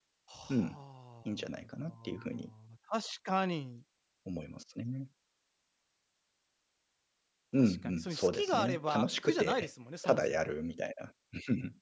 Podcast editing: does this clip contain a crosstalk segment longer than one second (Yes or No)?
Yes